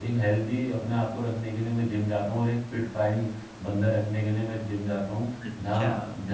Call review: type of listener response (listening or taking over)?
taking over